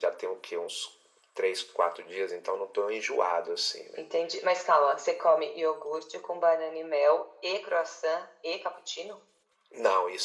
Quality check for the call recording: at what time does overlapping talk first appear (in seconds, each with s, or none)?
none